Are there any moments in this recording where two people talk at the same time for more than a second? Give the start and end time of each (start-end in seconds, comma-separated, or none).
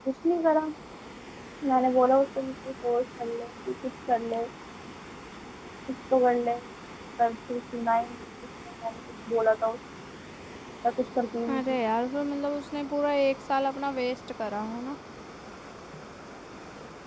none